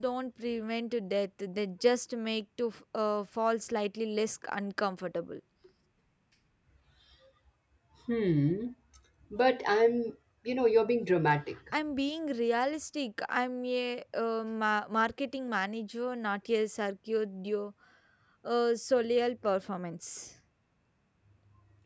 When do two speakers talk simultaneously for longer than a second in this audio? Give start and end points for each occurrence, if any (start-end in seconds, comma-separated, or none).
none